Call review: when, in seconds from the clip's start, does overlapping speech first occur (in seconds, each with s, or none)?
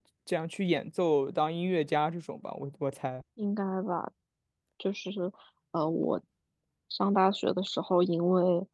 none